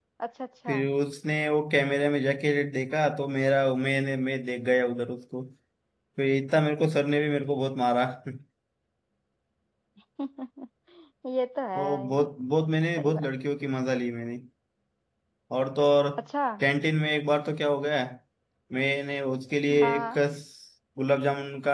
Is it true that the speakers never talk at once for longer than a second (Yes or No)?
Yes